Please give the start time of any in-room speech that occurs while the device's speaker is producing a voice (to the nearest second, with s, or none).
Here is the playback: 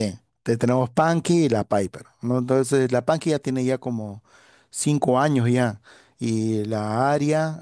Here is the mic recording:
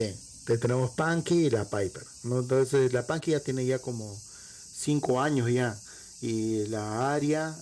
none